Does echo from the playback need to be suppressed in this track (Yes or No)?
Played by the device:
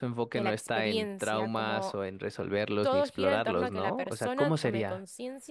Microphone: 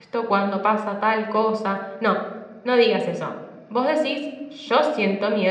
No